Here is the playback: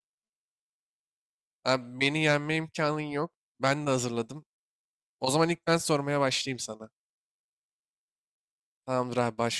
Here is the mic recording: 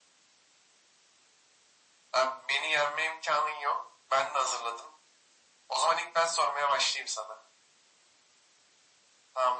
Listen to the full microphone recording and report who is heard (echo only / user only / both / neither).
echo only